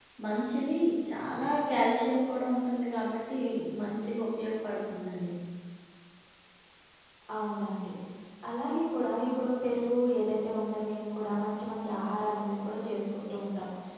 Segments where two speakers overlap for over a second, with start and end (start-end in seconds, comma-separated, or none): none